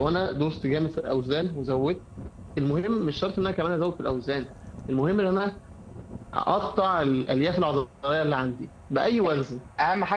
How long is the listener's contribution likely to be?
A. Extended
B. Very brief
A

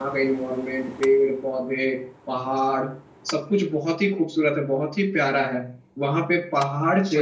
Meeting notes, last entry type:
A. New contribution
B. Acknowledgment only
B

